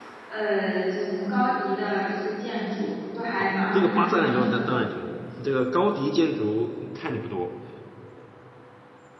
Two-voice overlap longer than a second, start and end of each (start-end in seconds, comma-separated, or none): 3.4-4.8